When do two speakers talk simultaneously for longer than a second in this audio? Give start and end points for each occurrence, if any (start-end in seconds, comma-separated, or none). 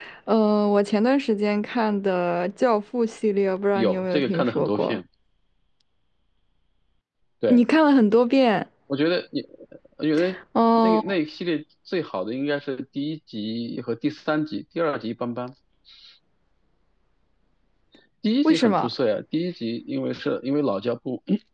3.8-5.0